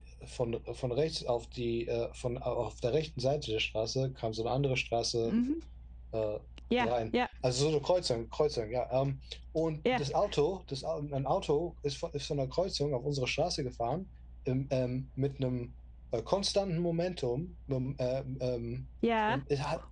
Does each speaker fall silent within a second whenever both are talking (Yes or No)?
Yes